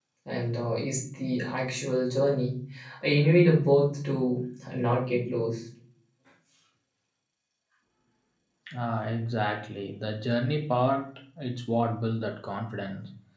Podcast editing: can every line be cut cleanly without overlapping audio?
Yes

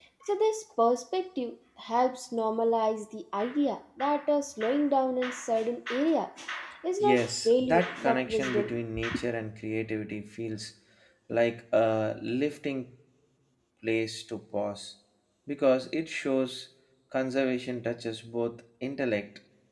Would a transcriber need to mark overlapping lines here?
Yes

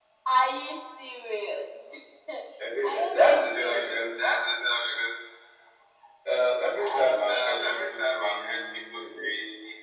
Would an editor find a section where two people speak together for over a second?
Yes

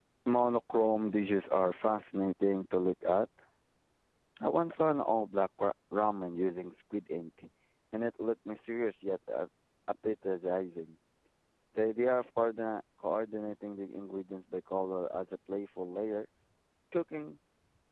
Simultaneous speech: No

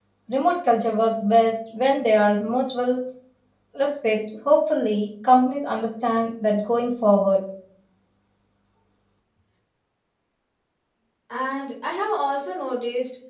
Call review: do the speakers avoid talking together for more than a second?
Yes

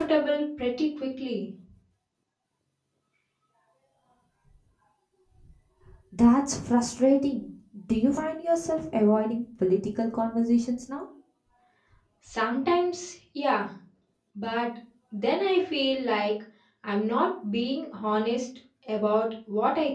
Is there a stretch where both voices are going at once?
No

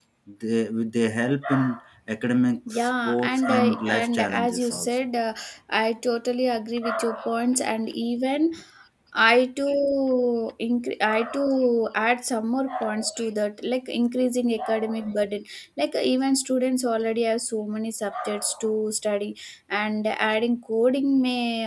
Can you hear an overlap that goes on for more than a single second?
Yes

